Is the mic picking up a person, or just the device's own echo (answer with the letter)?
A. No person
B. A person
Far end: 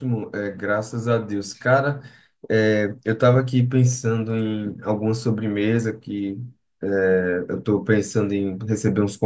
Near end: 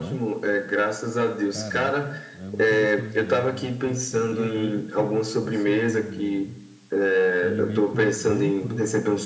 B